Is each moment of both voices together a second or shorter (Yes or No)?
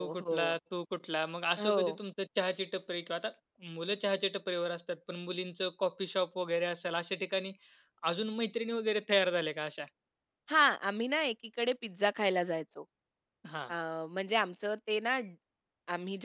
Yes